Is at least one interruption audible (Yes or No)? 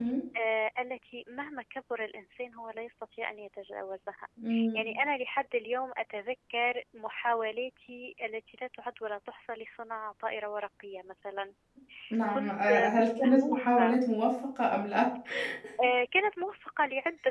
Yes